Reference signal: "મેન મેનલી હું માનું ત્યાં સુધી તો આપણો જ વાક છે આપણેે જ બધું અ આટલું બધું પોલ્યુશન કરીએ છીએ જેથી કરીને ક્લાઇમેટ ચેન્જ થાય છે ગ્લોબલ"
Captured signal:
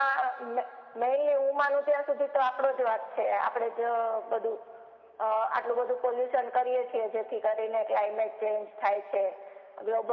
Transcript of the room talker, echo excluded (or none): none